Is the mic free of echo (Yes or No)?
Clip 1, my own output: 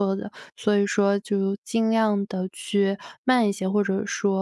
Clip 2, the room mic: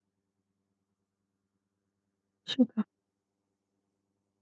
Yes